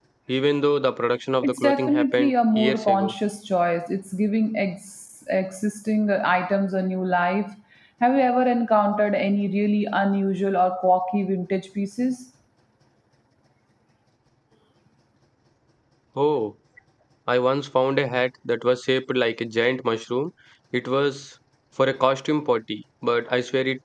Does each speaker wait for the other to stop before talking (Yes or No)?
No